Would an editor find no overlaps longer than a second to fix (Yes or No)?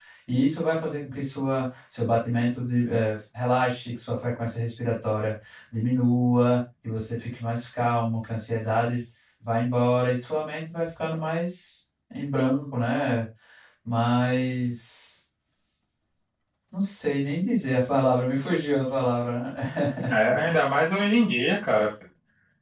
Yes